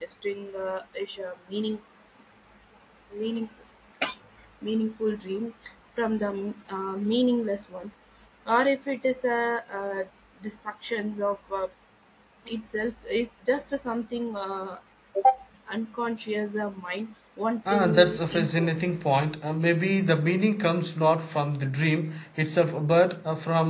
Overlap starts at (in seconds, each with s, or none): 17.6 s